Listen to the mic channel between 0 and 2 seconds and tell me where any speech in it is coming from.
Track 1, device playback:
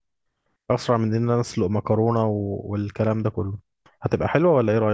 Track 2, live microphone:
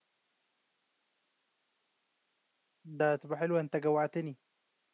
neither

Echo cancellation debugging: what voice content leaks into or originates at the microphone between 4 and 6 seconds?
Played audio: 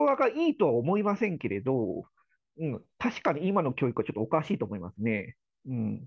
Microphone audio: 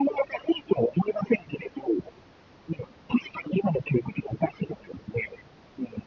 echo only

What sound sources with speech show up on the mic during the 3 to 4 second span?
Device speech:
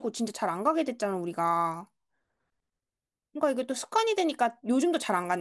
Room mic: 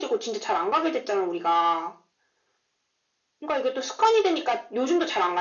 echo only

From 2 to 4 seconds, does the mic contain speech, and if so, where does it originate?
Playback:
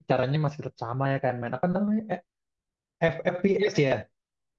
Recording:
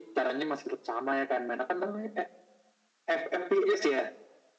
echo only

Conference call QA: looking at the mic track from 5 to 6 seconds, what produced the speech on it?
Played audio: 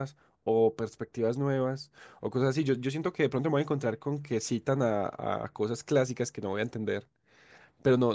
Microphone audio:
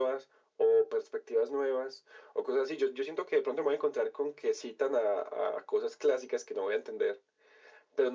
echo only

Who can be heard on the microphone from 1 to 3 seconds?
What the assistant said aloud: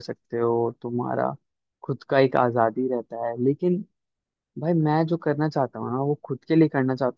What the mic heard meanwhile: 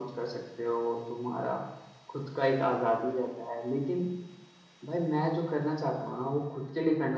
echo only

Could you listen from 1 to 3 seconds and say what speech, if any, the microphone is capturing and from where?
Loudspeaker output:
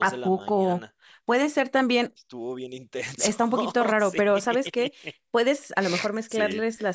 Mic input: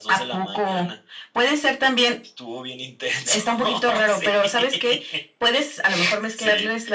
echo only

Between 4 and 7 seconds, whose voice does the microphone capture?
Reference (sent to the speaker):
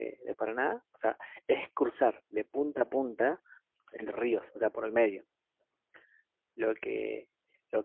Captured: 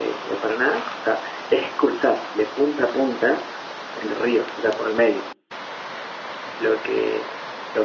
echo only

